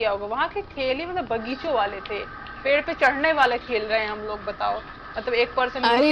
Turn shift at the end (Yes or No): No